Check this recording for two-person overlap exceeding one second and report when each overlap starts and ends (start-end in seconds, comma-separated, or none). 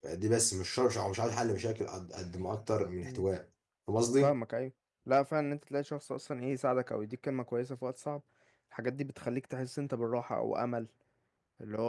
none